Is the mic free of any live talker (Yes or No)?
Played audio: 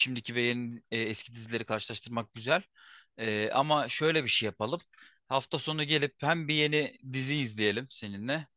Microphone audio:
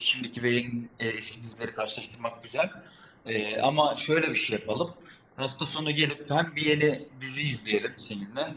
Yes